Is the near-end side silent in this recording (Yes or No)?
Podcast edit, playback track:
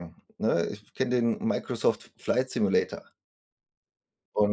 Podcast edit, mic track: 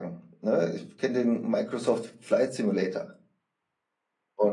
Yes